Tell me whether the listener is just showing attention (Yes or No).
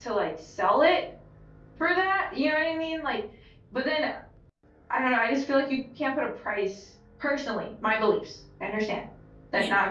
Yes